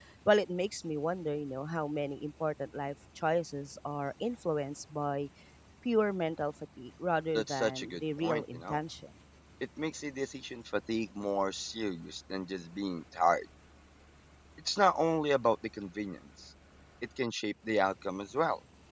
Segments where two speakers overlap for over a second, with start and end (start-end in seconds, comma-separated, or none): 7.4-8.8